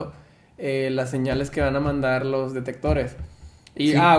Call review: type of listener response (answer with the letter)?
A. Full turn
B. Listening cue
B